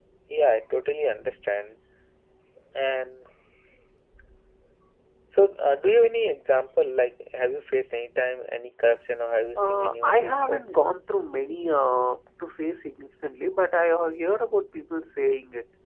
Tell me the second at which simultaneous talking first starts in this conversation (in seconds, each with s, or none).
9.6 s